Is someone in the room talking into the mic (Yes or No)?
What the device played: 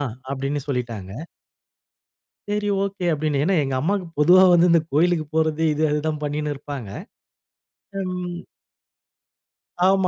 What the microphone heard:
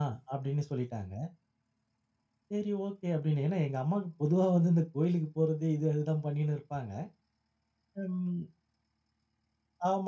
No